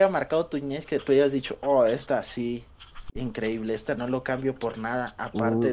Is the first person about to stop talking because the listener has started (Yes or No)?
Yes